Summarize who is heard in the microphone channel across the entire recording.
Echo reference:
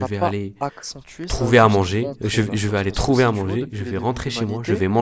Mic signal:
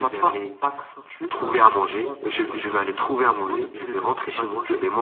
echo only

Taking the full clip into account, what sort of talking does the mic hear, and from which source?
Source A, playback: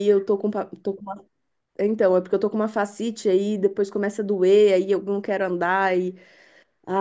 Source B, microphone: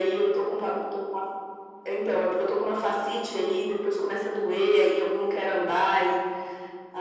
echo only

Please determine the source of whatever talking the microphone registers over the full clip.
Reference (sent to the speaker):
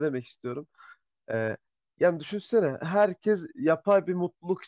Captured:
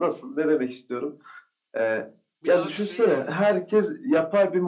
both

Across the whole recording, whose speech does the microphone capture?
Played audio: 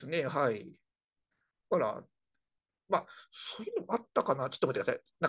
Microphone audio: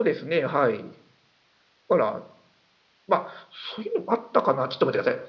echo only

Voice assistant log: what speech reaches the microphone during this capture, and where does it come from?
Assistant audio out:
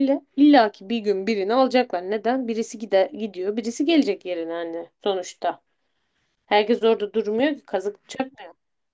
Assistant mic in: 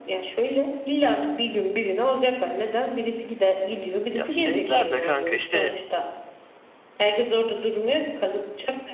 both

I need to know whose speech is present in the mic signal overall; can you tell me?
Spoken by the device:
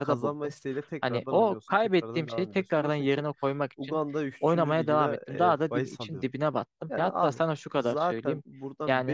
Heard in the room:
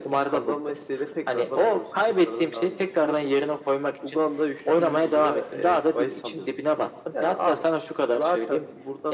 echo only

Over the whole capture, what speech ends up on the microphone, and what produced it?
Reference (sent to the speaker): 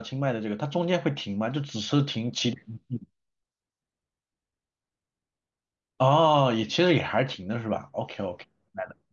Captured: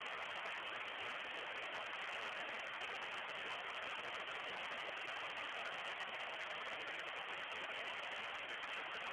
neither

